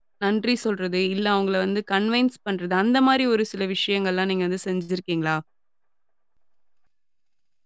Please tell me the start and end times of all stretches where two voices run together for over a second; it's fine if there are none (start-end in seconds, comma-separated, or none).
none